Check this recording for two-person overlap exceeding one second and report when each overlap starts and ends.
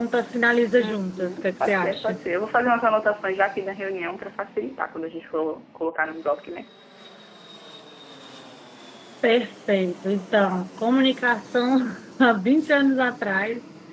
0.8-2.2

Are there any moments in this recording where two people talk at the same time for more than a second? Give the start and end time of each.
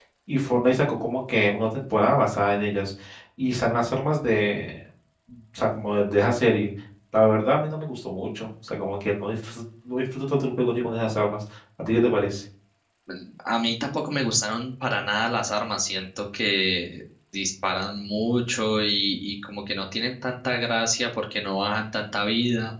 none

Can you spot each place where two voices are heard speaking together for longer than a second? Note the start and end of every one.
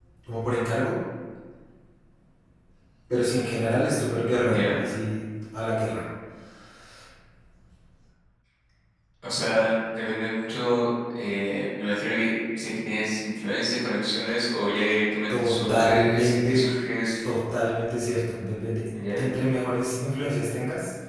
15.3-16.6

